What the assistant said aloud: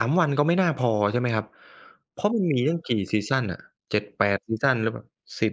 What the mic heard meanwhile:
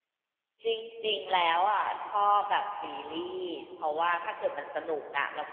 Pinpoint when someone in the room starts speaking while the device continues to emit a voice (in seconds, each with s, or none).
0.7 s